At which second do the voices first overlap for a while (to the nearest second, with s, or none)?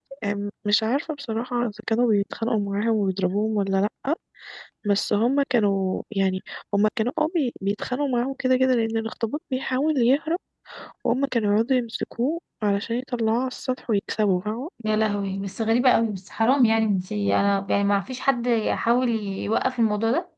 none